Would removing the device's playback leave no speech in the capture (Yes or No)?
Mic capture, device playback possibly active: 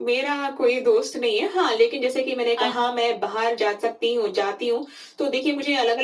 No